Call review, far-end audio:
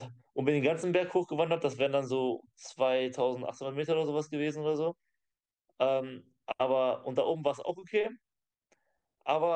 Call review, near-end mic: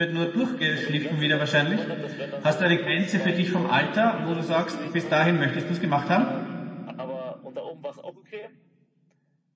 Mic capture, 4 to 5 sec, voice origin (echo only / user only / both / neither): both